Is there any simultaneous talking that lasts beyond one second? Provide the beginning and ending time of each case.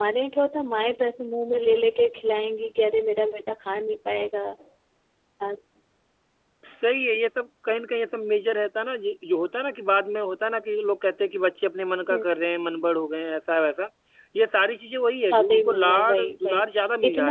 15.3-16.6

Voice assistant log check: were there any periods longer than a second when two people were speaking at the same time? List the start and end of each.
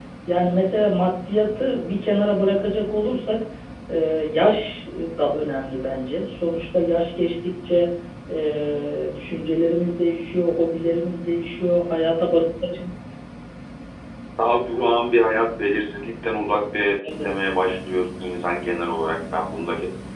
none

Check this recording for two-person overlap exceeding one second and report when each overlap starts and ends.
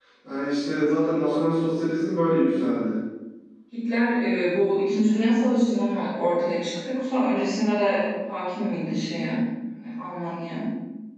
none

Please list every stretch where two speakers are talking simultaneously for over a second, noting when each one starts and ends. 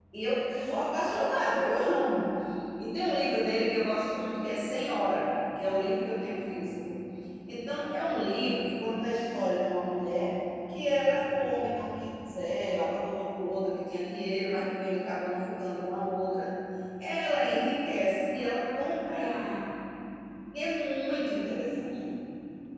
18.4-19.6

